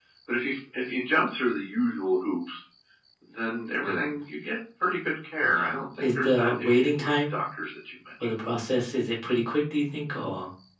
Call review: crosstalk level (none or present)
present